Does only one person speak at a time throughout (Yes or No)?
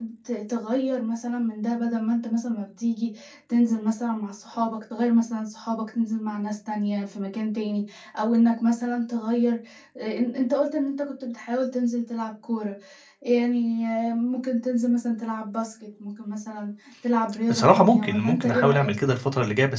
No